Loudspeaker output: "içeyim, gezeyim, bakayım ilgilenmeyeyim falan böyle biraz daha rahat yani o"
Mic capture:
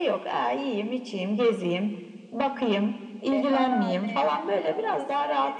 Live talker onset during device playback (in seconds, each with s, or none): 3.3 s